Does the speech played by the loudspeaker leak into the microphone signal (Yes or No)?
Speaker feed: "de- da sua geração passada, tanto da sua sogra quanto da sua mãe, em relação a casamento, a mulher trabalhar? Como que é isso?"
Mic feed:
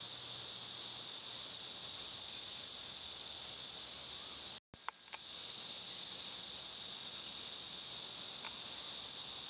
No